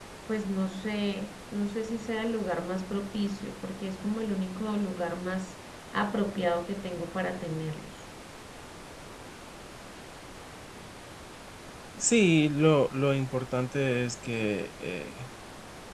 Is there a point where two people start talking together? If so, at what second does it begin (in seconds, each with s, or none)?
none